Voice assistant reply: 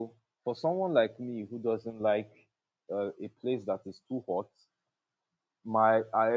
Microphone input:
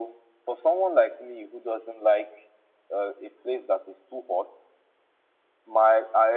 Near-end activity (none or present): none